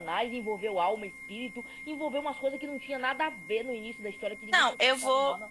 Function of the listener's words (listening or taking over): taking over